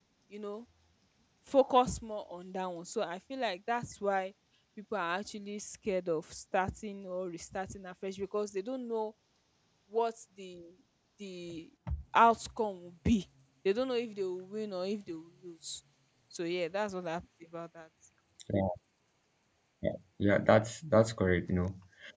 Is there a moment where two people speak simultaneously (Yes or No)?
No